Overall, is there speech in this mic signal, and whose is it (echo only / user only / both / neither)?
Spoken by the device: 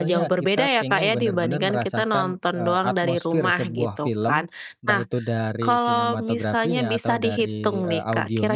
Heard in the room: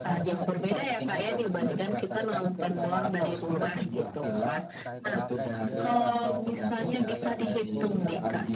both